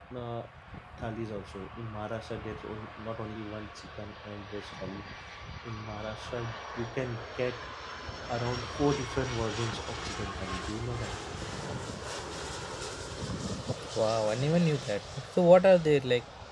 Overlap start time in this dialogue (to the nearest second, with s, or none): none